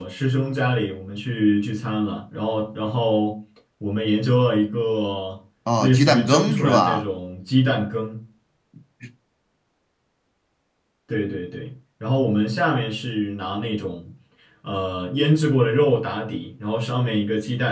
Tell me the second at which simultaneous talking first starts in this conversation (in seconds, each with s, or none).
5.7 s